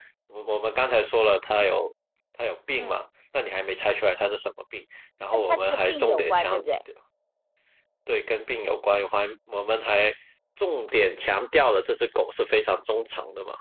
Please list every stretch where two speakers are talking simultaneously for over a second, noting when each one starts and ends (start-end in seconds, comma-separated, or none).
5.3-6.6